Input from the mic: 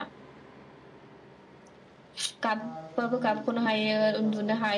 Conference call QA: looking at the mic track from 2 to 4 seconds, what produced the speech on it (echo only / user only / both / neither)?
both